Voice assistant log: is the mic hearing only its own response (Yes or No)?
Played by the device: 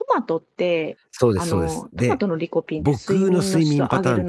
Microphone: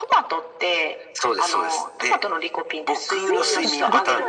No